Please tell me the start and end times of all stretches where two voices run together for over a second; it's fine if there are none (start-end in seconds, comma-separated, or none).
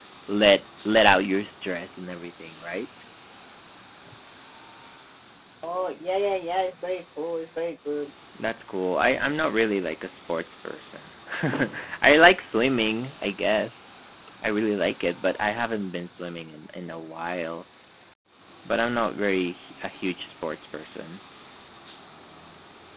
none